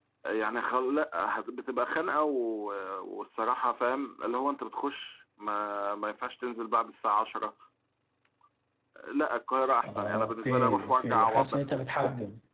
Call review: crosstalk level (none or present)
present